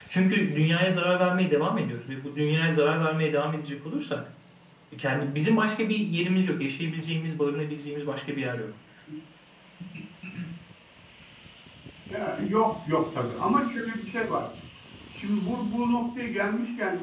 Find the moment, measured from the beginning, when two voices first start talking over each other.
none

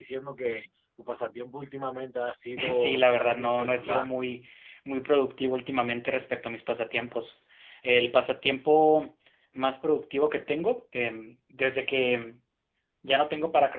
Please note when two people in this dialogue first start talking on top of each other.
2.7 s

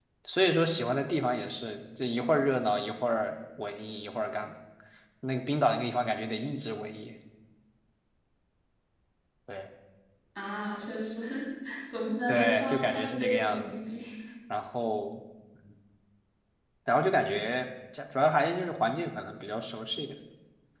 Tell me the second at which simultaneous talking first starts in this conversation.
12.3 s

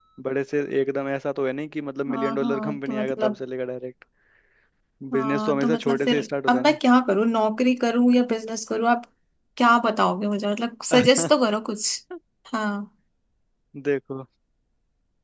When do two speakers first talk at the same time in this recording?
2.1 s

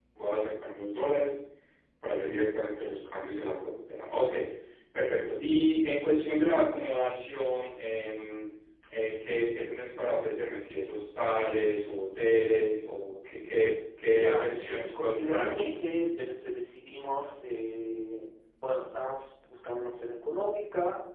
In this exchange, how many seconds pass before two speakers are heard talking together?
14.0 s

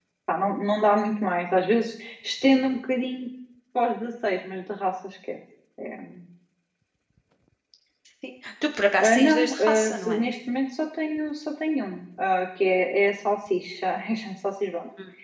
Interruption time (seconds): 9.0 s

